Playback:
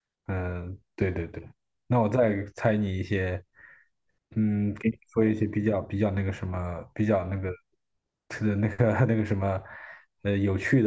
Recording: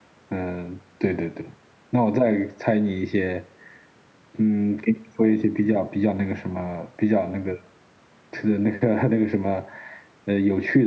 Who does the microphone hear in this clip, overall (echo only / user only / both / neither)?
echo only